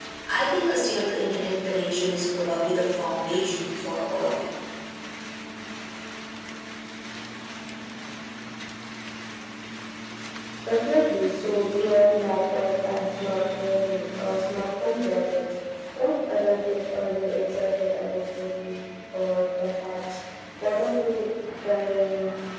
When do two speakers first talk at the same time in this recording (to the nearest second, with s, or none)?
none